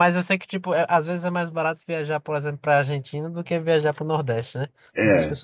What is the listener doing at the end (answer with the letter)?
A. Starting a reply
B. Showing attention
A